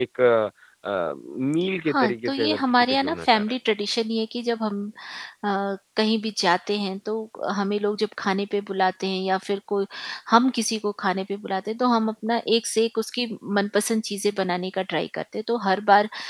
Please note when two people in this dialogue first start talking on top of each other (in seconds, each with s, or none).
1.9 s